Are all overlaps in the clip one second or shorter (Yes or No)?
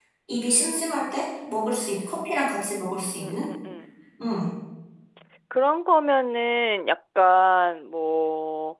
Yes